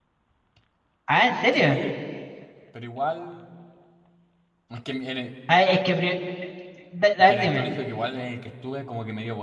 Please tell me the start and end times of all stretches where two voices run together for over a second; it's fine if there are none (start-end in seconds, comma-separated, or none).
none